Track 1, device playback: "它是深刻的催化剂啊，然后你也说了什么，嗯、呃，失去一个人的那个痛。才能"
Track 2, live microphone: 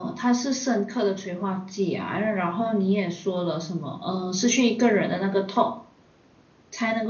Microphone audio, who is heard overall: echo only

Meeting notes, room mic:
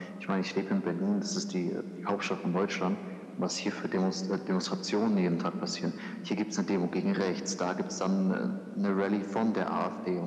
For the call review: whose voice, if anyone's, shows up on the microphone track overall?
echo only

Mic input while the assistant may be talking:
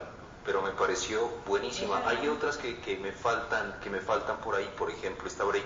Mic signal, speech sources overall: both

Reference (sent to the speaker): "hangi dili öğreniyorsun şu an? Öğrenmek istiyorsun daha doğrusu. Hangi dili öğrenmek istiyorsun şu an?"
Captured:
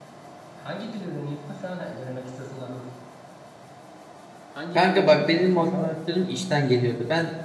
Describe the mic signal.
both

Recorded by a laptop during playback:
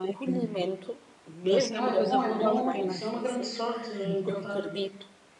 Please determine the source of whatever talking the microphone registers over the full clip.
both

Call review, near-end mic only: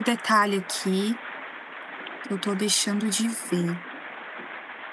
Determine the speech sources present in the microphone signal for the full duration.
user only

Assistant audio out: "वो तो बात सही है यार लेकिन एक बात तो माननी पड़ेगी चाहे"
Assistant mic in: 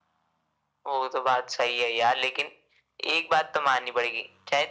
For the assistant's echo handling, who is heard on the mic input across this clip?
echo only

